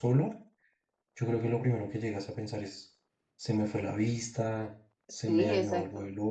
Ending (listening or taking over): taking over